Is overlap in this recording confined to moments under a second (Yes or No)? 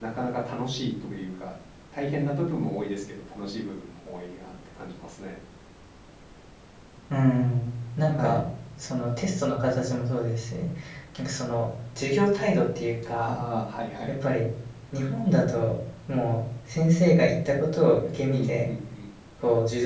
Yes